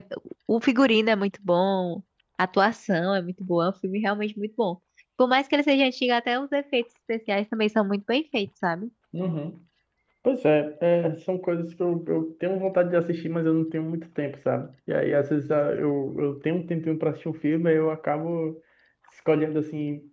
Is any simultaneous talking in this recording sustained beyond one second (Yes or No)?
No